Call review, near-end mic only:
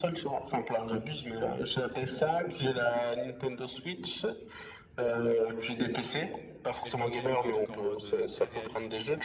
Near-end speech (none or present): present